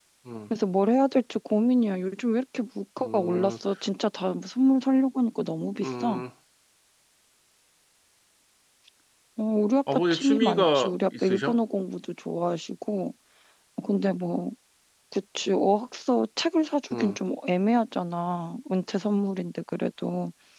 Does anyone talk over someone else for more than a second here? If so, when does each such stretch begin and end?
9.9-11.6

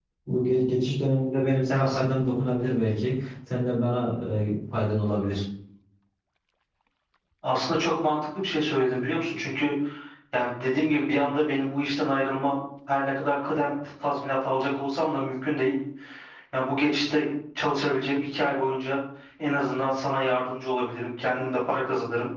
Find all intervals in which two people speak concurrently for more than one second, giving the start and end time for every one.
none

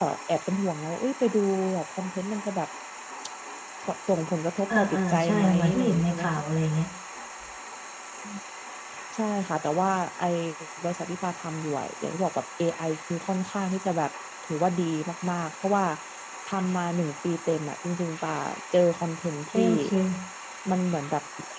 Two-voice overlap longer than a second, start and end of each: 4.7-6.3

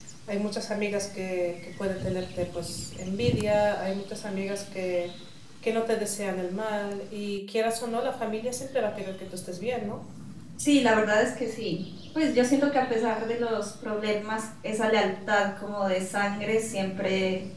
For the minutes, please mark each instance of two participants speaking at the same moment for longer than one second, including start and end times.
none

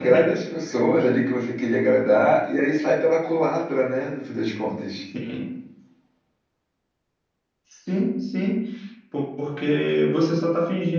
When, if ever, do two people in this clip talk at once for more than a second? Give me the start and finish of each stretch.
none

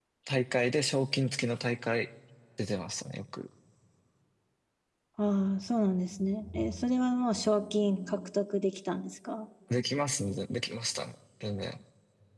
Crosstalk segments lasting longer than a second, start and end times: none

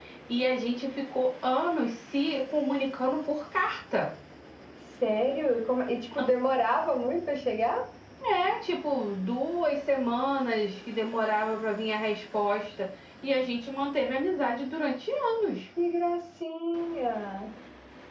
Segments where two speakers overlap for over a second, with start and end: none

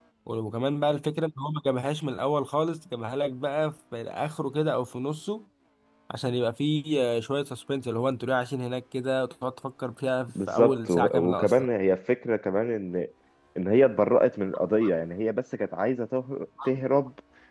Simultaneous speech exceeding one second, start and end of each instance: 10.3-11.7

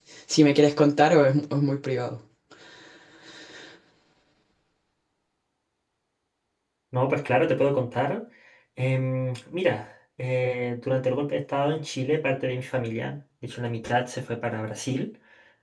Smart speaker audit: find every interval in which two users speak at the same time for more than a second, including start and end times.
none

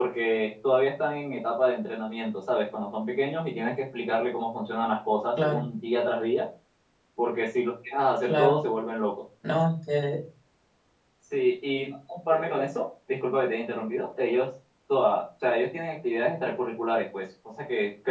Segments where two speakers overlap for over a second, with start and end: none

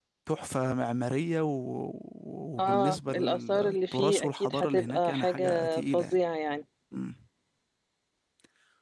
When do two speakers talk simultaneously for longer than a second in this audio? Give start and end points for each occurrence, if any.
2.6-6.2

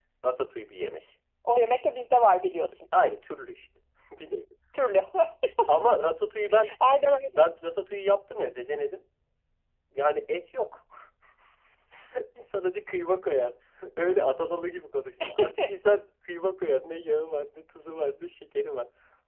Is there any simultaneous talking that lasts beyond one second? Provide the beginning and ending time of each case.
none

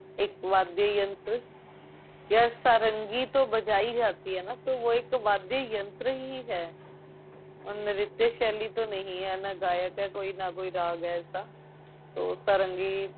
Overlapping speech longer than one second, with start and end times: none

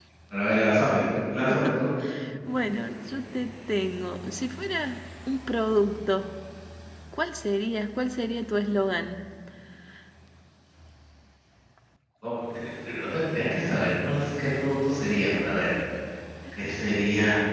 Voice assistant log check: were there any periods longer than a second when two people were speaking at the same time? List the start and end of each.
none

